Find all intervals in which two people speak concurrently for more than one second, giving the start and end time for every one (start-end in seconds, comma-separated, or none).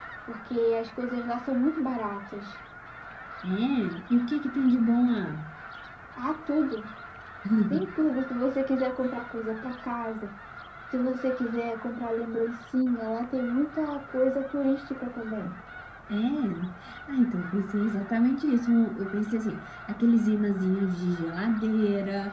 none